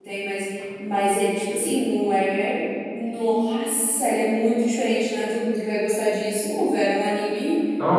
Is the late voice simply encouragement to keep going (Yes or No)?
No